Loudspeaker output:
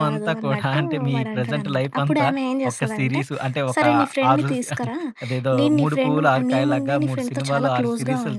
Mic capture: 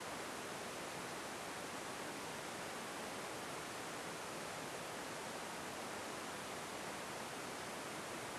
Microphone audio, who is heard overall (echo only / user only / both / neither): neither